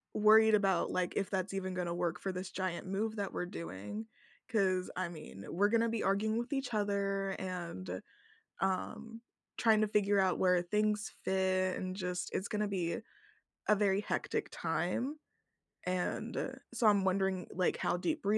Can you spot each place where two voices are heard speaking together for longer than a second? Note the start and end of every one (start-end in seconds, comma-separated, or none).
none